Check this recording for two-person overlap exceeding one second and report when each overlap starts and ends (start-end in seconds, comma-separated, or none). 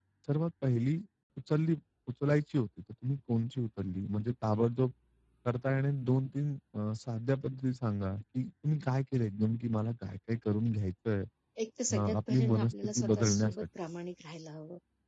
11.9-13.7